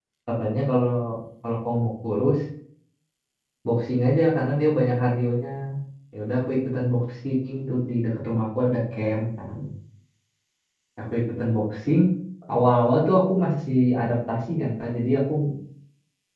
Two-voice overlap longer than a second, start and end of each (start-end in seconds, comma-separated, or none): none